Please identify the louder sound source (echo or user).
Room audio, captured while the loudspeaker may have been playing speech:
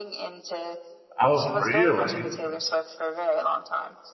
user